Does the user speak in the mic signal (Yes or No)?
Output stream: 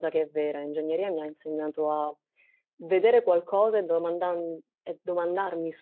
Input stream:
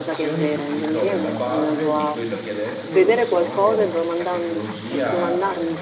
Yes